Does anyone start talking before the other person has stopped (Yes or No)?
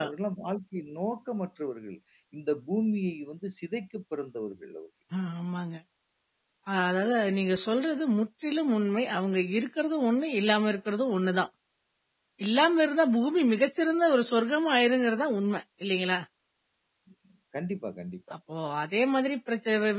No